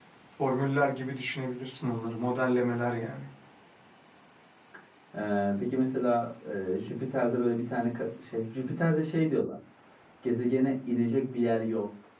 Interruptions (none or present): none